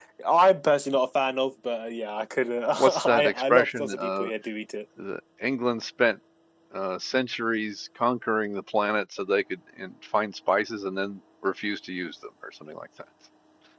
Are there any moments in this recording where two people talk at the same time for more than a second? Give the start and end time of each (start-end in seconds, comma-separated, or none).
2.8-4.3